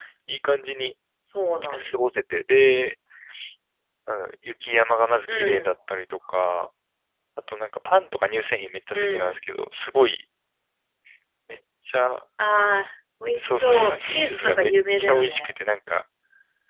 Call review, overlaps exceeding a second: present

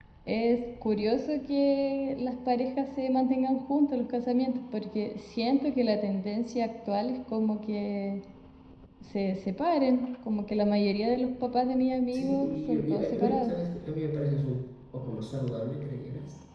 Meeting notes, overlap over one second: present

